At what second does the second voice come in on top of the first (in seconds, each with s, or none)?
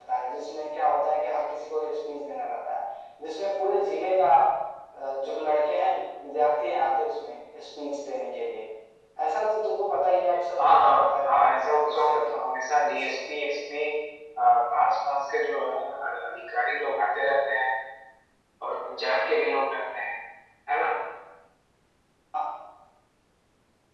10.6 s